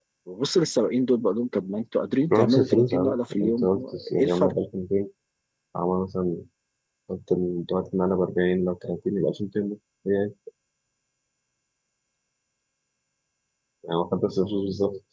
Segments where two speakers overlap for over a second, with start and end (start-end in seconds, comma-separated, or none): 2.3-4.5